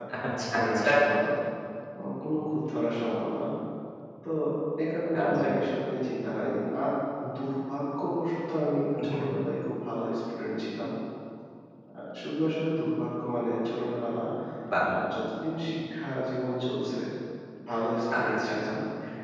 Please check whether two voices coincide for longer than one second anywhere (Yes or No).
No